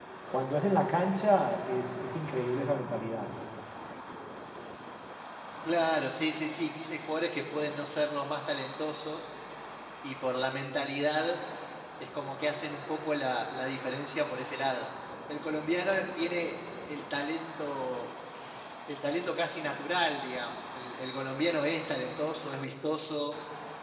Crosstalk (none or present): none